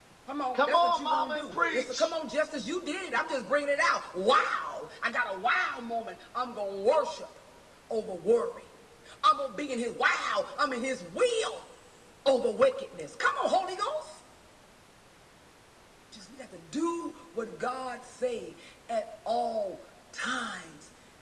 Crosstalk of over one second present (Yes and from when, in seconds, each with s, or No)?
Yes, from 0.5 s